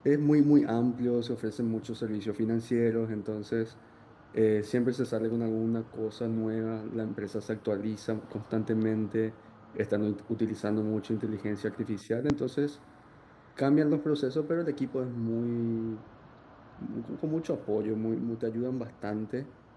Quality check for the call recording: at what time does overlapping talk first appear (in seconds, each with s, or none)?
none